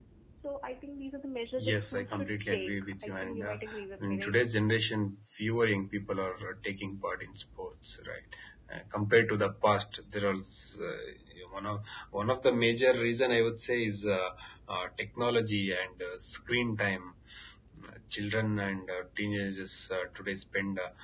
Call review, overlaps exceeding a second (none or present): present